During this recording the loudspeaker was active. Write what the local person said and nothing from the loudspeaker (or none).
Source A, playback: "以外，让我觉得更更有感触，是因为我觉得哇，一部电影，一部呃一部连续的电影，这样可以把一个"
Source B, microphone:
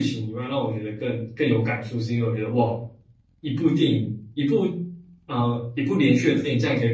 none